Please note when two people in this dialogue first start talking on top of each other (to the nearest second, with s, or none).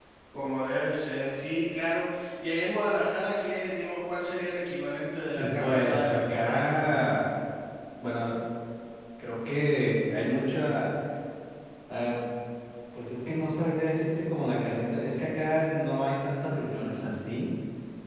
5 s